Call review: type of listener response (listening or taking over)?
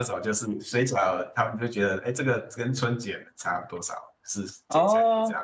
taking over